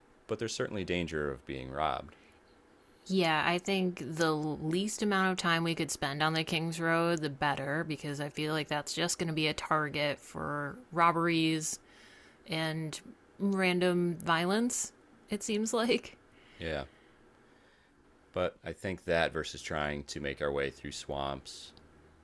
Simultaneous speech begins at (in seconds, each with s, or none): none